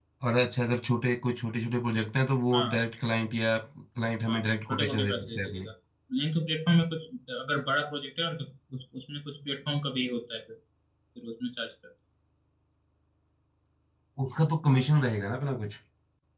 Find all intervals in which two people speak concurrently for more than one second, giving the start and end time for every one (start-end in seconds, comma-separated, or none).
4.3-5.7